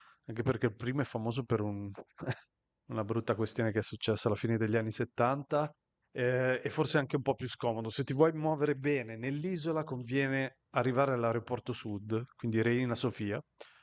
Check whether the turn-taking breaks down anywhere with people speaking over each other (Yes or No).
No